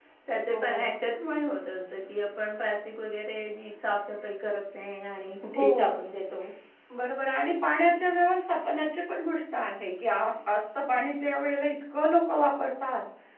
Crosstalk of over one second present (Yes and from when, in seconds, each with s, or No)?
No